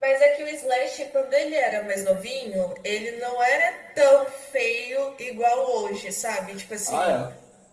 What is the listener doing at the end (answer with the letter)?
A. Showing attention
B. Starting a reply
A